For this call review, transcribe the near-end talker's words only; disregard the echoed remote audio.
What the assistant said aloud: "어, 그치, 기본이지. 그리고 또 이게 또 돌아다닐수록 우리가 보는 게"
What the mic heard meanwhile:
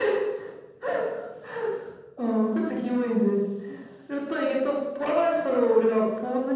none

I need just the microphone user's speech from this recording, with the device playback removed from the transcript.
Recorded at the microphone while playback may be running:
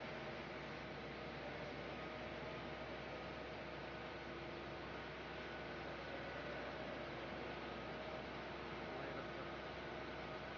none

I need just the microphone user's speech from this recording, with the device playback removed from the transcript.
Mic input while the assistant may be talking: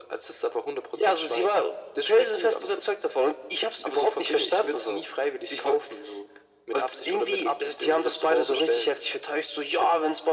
none

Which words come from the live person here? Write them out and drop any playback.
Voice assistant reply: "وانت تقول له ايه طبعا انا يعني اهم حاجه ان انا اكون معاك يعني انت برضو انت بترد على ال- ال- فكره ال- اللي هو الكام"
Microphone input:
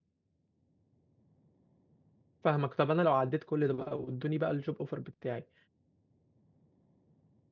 فاهمك طب انا لو عديت كل ده بقى وادوني بقى الجوب اوفر بتاعي

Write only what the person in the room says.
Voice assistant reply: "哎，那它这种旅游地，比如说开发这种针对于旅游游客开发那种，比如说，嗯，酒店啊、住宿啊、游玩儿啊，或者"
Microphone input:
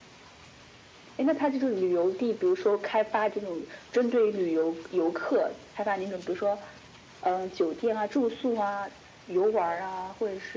none

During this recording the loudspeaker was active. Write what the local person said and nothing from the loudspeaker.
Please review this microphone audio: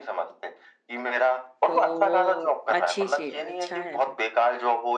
तो वो अच्छी चीज अच्छा है

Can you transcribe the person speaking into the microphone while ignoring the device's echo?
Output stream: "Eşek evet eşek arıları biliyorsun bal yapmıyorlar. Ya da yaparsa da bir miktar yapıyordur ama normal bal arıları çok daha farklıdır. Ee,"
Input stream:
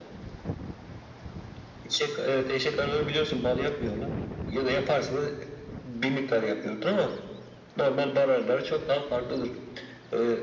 none

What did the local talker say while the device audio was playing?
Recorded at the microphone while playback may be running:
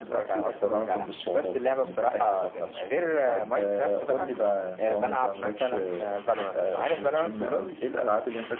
none

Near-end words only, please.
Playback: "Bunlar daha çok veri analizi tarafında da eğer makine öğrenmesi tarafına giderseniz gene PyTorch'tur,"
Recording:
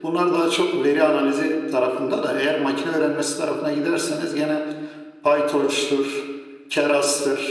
none

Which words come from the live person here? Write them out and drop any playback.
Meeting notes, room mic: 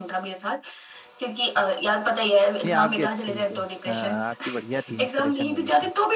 ये आपकी अच्छी है हाँ आपकी बढ़िया थी इंस्पिरेशन वाली था

